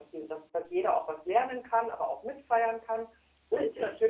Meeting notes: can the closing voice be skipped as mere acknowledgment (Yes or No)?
Yes